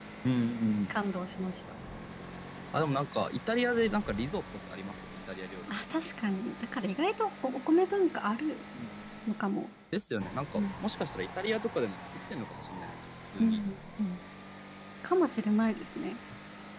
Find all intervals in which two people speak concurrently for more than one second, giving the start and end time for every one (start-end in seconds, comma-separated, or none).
none